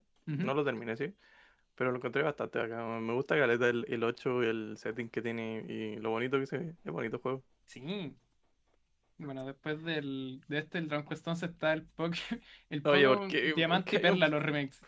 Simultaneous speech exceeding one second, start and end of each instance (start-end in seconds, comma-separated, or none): 12.9-14.2